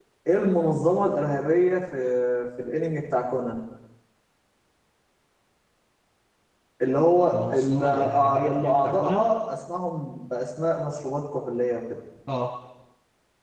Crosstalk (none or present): present